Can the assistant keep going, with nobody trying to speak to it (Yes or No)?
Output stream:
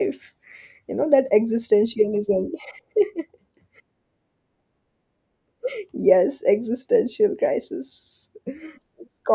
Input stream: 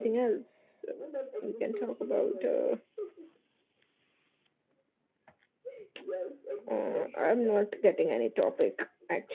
No